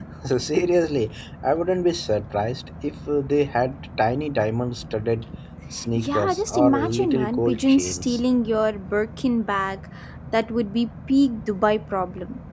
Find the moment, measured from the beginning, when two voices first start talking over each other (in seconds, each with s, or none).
6.0 s